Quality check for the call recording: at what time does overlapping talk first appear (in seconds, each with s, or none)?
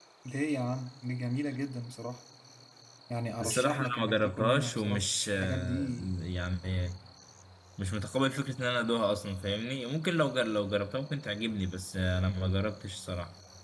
3.4 s